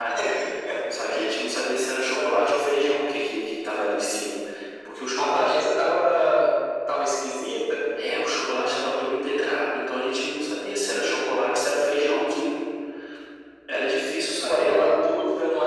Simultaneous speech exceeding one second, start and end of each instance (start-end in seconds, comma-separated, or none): none